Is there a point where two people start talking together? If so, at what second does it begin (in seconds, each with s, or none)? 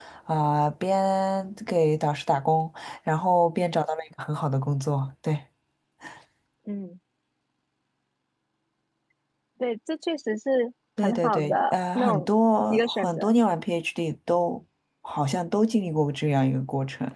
11.0 s